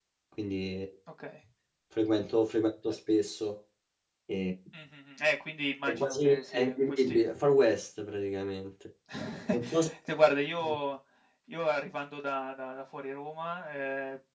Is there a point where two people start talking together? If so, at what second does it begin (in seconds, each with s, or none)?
5.9 s